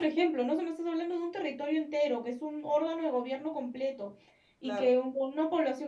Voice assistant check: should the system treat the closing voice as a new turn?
No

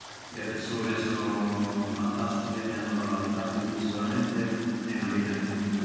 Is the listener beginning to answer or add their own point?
No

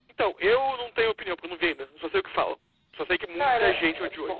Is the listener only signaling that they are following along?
No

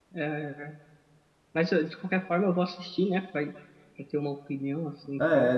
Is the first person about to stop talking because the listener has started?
Yes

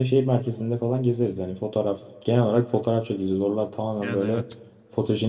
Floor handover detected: No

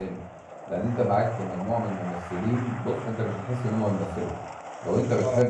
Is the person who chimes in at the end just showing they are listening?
Yes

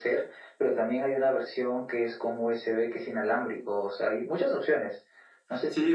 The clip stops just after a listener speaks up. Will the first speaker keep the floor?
No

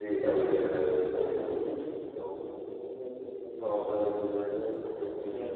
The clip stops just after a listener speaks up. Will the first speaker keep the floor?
Yes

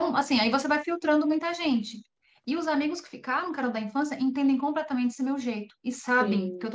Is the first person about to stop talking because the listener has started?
No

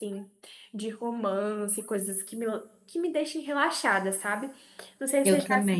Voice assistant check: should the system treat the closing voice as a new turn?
No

